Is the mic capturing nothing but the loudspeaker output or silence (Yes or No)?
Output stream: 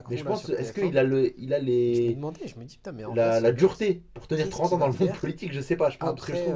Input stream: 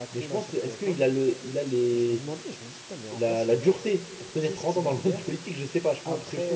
Yes